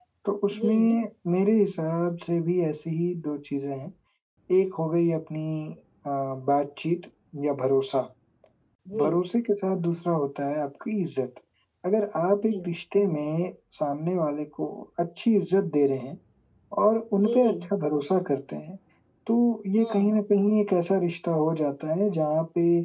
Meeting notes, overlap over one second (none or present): none